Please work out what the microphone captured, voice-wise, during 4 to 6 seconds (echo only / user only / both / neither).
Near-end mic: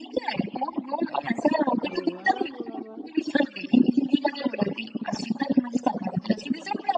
echo only